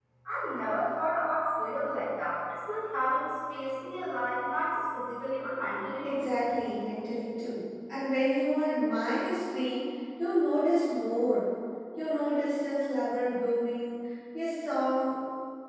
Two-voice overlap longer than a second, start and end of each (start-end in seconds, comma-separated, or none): none